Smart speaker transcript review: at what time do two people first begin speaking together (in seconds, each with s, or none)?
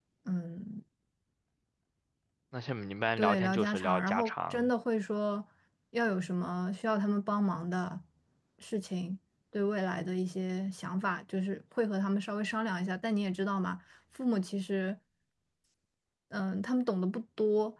3.2 s